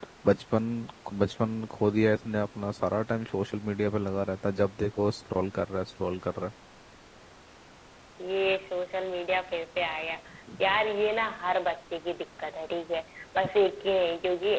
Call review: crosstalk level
none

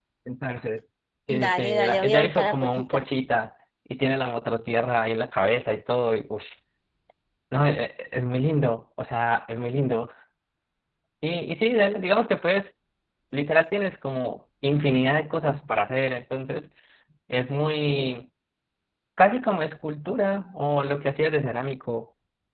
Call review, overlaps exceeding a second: present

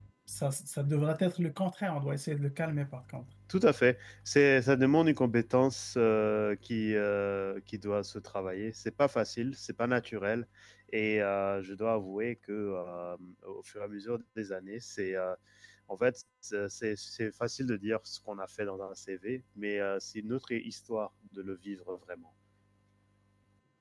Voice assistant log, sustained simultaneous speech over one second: none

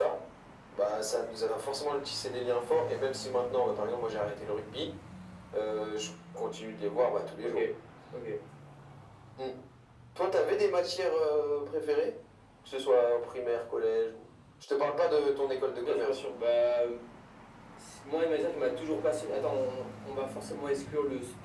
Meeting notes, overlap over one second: none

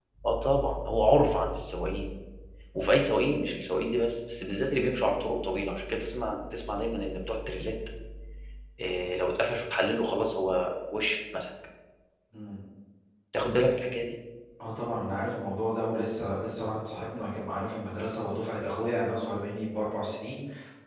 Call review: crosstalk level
none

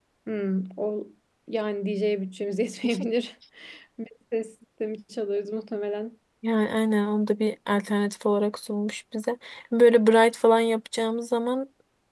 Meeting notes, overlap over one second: none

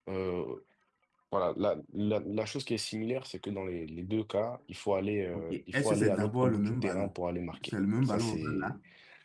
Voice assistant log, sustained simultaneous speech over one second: present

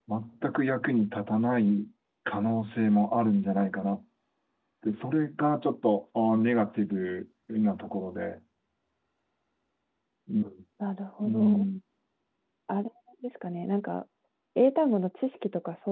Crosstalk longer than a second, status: none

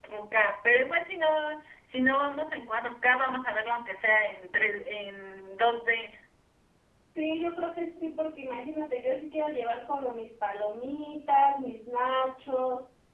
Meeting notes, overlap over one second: none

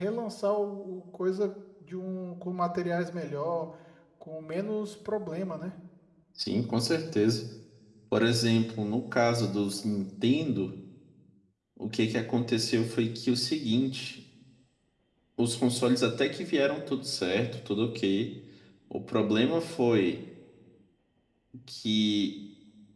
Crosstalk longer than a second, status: none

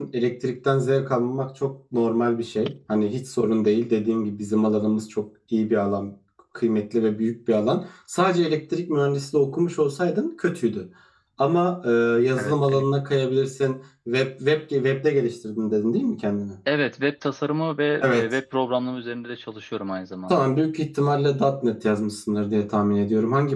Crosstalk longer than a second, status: none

